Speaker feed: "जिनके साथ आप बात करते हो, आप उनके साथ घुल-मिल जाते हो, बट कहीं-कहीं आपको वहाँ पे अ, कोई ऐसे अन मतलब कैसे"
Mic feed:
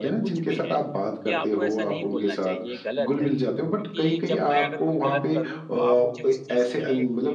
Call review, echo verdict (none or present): present